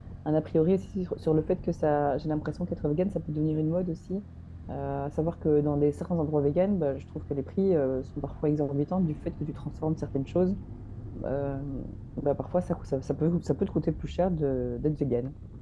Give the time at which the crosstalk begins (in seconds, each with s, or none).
none